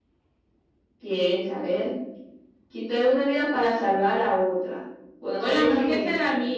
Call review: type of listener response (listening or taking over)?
taking over